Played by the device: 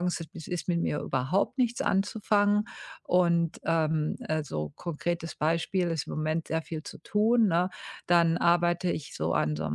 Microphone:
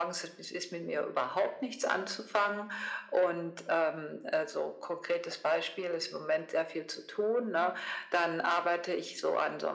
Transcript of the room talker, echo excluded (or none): none